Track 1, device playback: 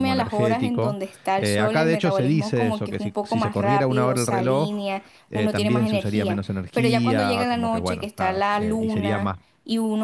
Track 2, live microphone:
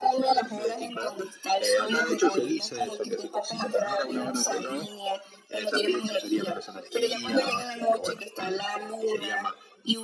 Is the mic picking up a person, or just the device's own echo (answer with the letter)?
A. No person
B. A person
A